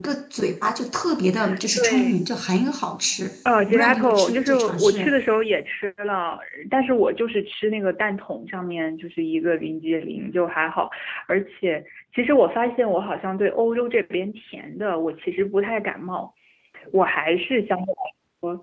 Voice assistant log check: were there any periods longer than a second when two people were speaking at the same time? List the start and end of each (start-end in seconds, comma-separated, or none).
3.7-5.1